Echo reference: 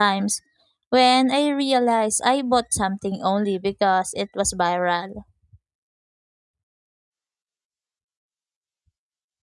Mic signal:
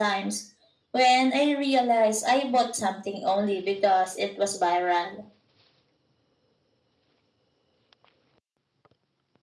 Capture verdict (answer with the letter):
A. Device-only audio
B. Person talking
A